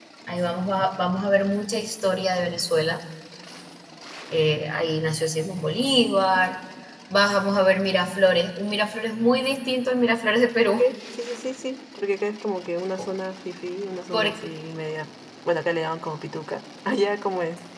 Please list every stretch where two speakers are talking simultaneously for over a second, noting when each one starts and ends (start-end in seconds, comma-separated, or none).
none